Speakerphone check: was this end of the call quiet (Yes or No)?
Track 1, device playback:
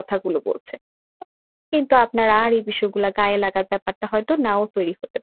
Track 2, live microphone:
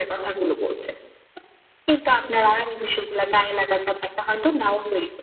Yes